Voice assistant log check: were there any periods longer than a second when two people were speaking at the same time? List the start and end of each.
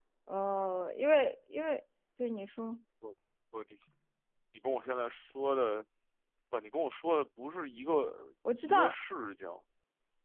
none

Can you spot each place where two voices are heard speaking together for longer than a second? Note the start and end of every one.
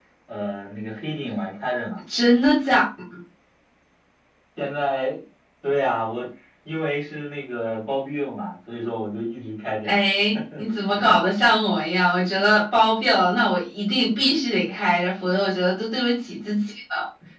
none

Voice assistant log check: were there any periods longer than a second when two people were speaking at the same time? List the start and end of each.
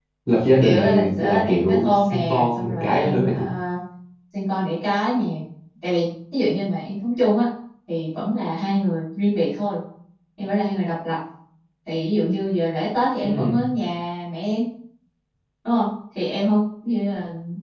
0.6-3.4

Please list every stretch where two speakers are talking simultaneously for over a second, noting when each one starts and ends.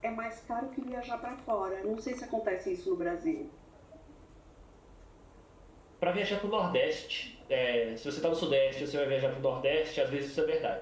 none

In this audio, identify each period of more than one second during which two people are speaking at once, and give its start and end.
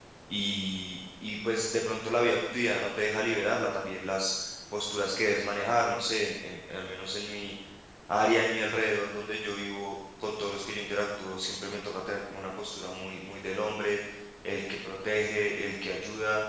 none

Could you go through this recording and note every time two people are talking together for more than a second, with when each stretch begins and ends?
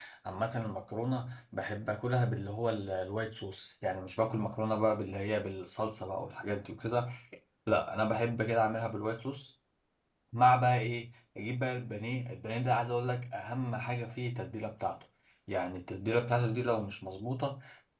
none

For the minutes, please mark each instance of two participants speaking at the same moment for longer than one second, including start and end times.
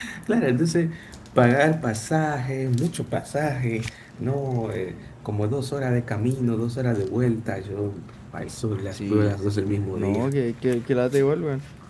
none

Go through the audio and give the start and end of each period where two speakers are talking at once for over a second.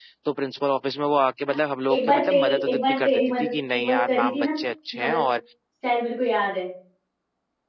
1.9-4.5

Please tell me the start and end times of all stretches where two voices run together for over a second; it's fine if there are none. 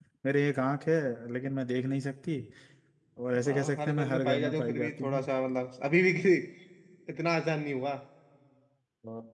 3.4-5.3

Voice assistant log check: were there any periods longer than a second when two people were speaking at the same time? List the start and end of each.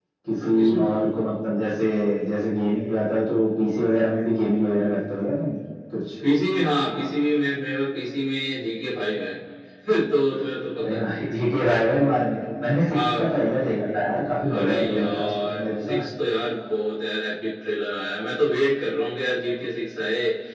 14.5-16.0

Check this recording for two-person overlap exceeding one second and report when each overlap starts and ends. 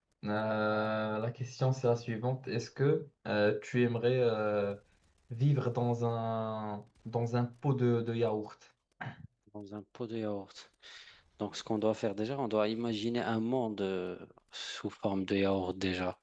none

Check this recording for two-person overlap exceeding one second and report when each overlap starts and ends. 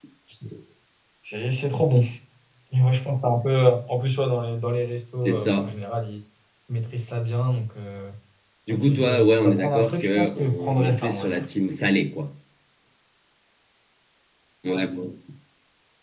8.7-11.4

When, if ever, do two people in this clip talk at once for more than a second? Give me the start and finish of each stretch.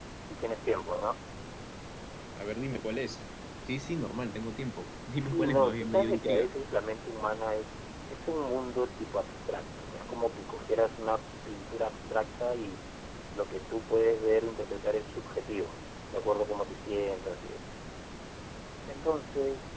5.1-6.5

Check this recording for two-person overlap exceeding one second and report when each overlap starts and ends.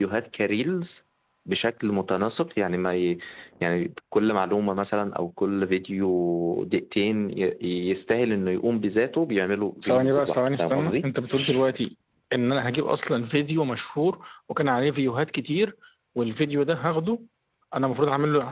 9.8-11.1

